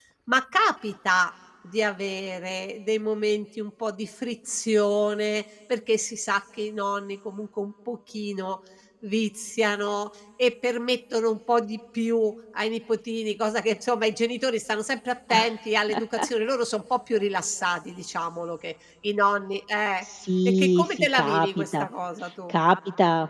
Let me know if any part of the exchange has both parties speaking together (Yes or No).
Yes